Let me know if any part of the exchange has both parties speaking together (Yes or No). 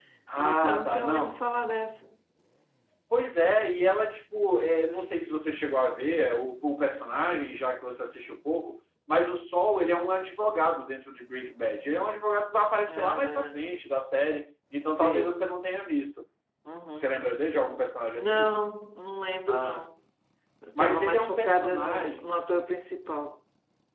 Yes